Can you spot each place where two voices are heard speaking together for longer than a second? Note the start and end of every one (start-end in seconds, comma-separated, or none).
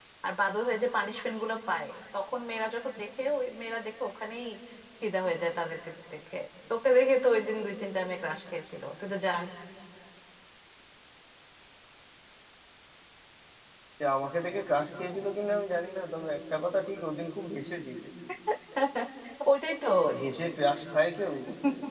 none